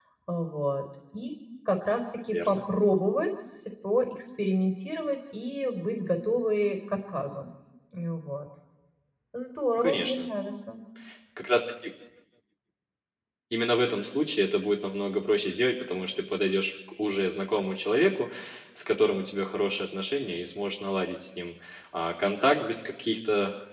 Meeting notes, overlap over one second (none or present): none